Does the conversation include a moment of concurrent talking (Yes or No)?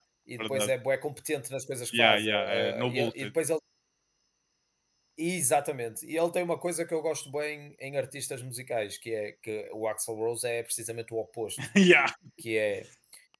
Yes